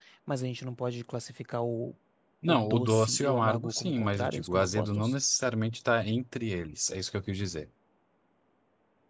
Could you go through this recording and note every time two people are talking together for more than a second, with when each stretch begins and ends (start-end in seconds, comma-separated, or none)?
2.4-5.2